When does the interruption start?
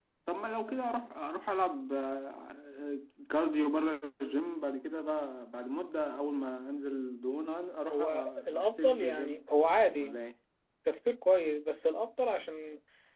7.9 s

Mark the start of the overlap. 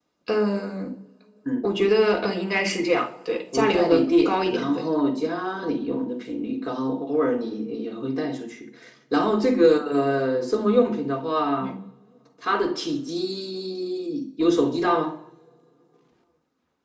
3.5 s

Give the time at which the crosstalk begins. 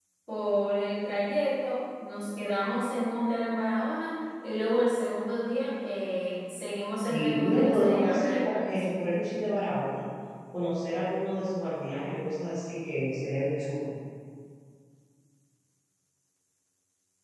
7.1 s

